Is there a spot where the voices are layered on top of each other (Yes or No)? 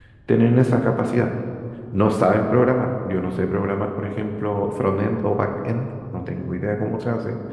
No